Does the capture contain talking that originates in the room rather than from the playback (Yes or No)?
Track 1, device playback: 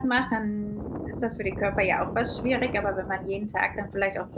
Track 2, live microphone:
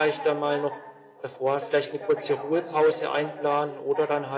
Yes